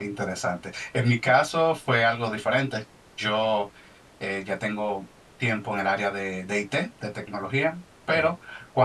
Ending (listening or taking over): listening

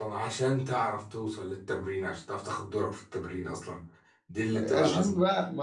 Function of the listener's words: taking over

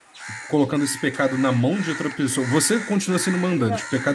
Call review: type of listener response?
listening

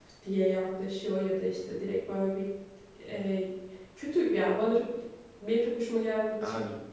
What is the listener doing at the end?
listening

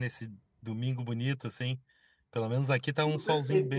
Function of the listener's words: taking over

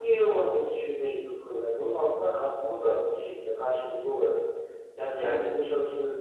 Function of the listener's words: listening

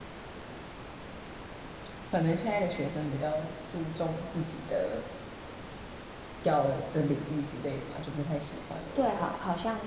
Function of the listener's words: taking over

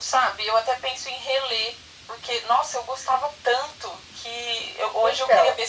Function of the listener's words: listening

